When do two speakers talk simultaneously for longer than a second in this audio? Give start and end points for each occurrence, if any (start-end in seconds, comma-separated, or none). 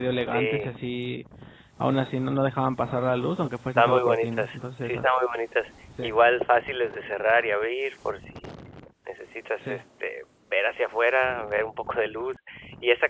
3.8-5.1